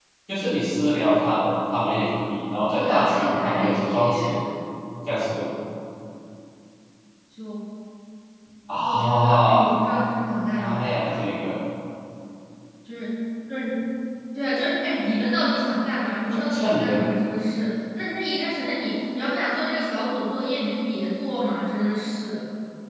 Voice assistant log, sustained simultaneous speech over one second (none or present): present